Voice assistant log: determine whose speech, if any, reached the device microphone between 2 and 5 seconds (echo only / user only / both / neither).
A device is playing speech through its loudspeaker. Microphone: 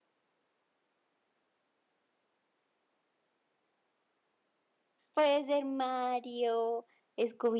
neither